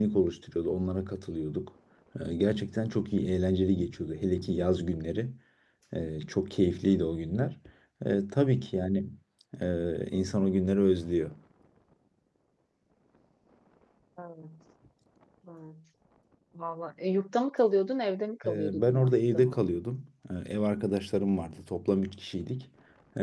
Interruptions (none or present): present